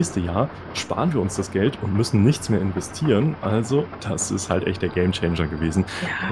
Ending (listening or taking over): taking over